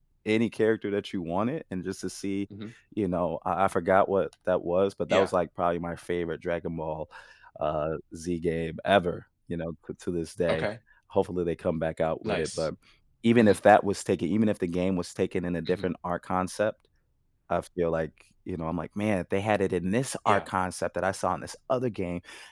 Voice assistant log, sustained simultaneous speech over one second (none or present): none